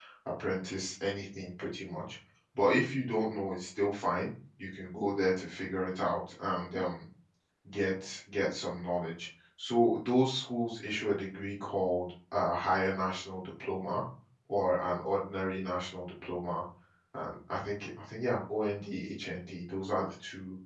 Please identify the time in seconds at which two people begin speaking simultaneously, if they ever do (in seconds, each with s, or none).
none